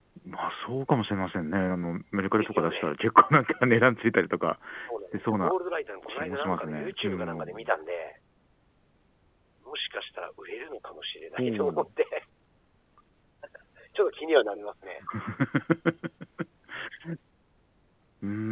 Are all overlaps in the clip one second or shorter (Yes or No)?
No